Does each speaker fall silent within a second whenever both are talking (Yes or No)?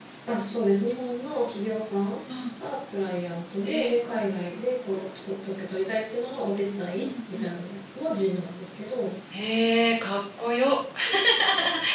Yes